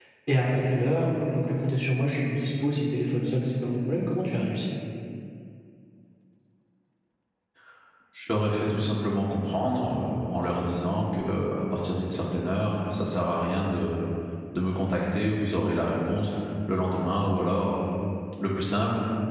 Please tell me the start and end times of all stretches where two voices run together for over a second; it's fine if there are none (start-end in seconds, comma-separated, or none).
none